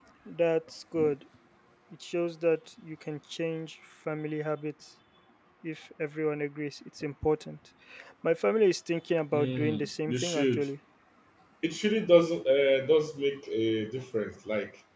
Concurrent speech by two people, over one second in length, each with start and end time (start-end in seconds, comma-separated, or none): 9.3-10.7